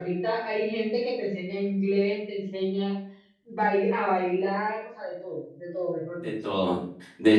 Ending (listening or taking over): taking over